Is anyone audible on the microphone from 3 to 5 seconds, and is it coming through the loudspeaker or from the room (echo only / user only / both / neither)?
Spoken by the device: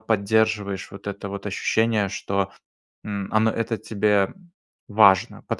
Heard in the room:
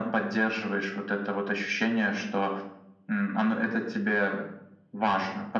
echo only